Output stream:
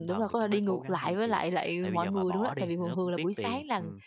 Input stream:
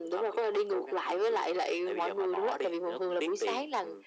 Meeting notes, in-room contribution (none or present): none